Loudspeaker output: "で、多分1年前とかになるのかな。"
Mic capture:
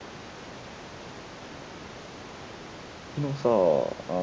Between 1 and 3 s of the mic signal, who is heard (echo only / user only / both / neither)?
neither